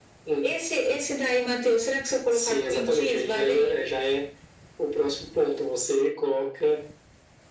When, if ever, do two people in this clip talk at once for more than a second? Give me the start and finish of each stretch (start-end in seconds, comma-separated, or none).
2.3-3.8